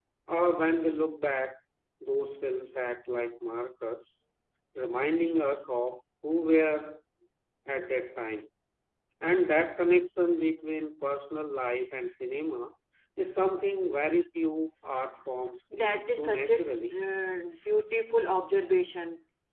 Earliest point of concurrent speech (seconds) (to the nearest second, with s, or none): 16 s